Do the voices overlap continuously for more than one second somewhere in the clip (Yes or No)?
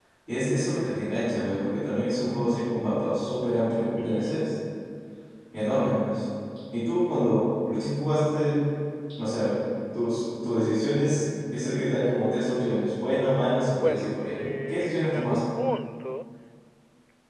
Yes